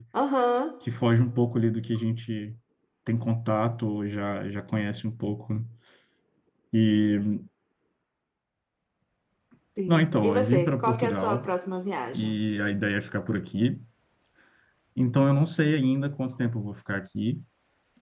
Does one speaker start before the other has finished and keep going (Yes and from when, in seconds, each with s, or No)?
Yes, from 9.9 s